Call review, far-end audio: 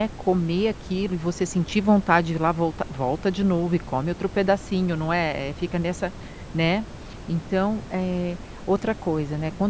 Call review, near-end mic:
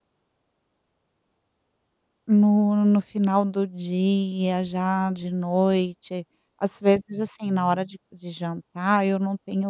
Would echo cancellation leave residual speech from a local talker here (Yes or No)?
Yes